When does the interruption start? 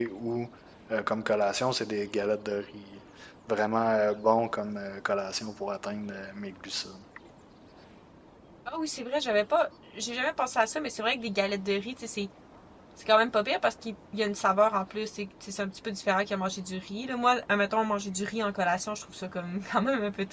none

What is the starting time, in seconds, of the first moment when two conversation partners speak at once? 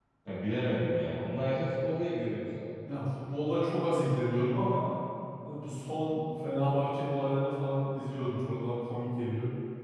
none

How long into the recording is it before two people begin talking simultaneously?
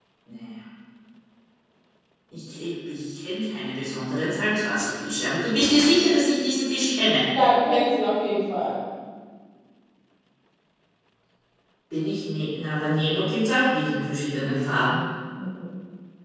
none

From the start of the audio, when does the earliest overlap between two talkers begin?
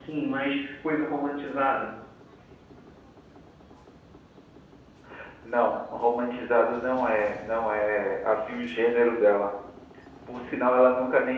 none

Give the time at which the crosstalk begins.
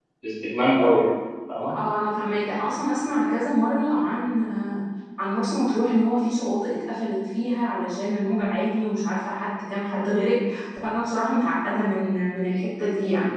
none

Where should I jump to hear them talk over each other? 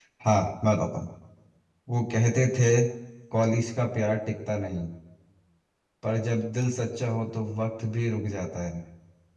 none

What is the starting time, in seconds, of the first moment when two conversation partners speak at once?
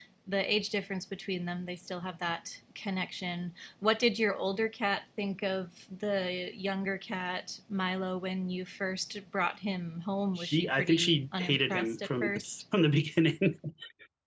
10.4 s

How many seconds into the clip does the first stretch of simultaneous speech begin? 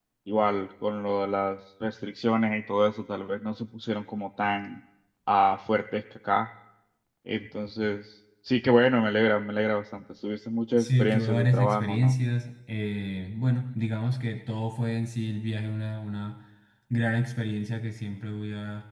10.8 s

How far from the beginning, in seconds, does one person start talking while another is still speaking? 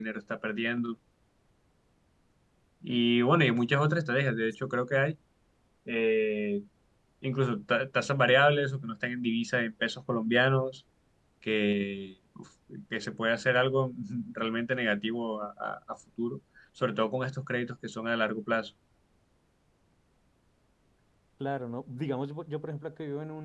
none

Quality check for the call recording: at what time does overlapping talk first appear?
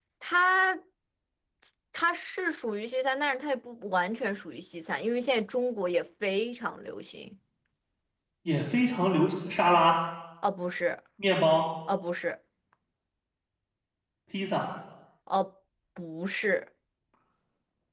none

